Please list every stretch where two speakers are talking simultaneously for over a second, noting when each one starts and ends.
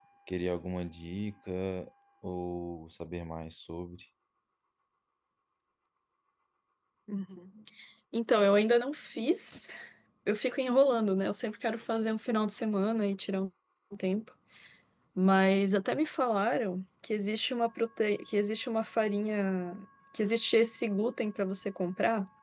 none

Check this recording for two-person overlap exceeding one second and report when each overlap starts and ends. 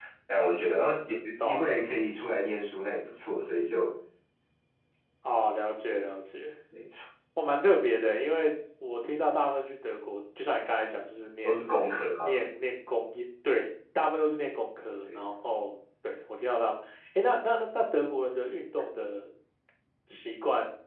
none

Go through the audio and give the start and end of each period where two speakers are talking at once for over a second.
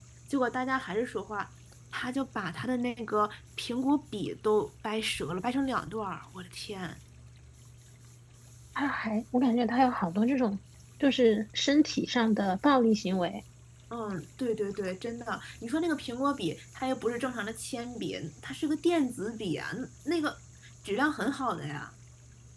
none

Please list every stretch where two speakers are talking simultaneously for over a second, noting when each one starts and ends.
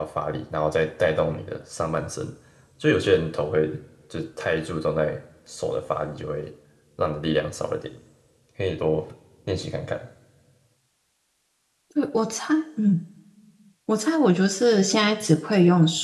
none

